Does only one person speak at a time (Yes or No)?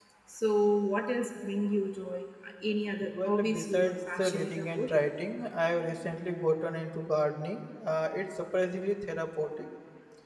No